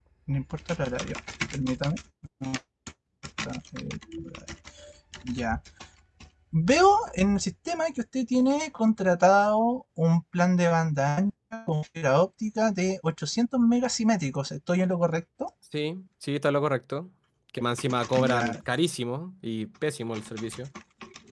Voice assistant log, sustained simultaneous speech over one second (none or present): none